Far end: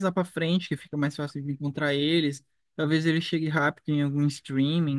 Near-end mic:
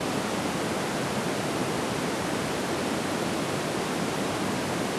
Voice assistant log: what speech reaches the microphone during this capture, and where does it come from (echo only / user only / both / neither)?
neither